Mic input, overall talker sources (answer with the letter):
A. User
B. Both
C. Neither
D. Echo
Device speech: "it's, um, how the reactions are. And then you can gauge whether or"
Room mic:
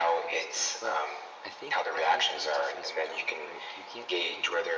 B